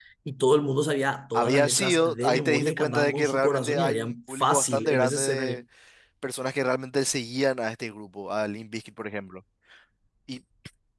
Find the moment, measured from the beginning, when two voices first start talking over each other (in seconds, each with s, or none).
1.3 s